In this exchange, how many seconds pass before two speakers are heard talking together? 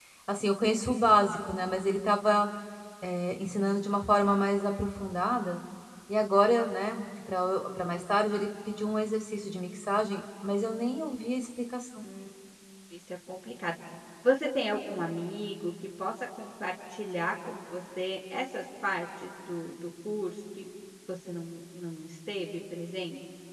none

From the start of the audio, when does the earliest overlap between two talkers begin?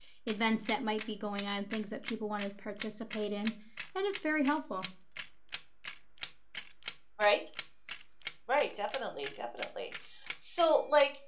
none

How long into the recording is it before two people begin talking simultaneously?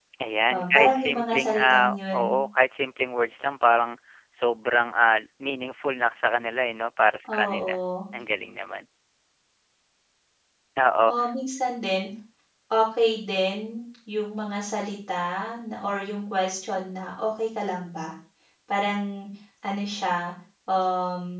0.5 s

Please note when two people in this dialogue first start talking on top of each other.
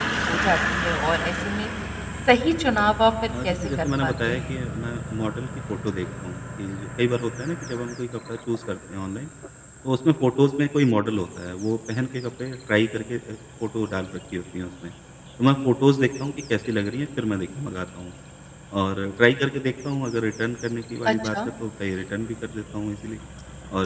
3.3 s

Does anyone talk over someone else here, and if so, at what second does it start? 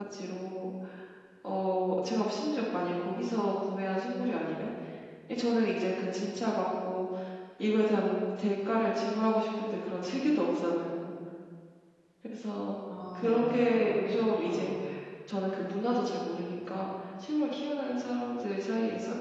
13.2 s

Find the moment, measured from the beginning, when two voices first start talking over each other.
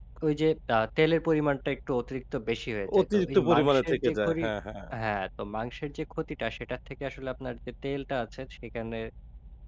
2.9 s

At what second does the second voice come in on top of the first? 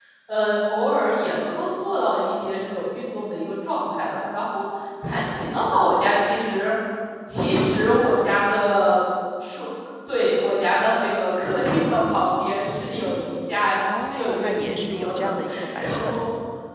13.7 s

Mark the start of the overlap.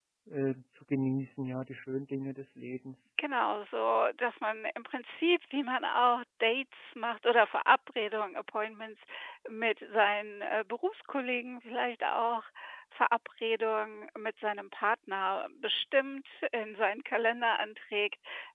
none

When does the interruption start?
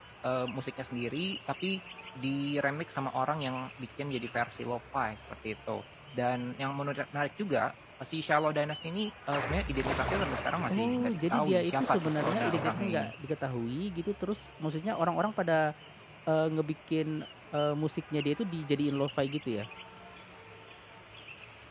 10.7 s

